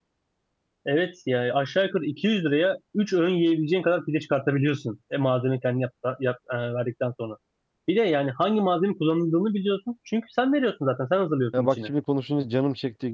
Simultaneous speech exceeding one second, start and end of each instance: none

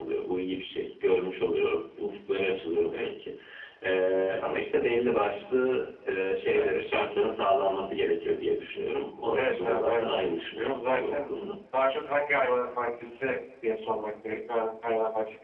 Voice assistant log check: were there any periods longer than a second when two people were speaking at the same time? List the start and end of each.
9.3-11.2

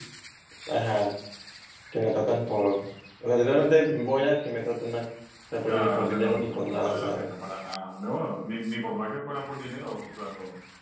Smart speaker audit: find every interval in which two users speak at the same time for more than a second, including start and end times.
5.7-7.3

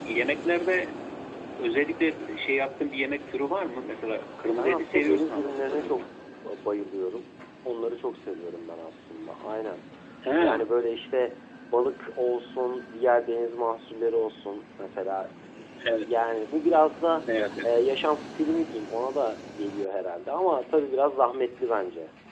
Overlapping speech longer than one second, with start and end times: 4.6-6.0

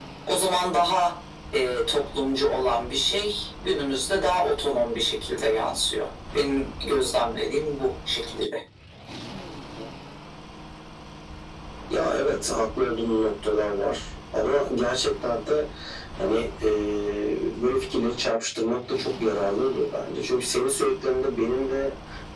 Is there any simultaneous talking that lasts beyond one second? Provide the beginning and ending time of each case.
none

